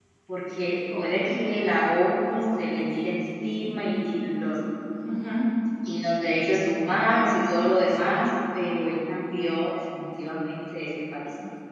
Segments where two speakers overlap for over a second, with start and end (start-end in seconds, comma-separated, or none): none